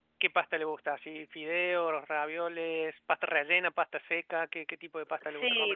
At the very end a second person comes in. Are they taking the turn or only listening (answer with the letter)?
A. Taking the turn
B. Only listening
A